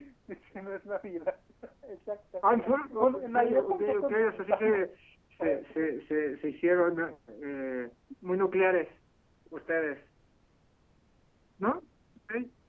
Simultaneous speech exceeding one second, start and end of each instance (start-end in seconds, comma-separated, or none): 3.0-4.8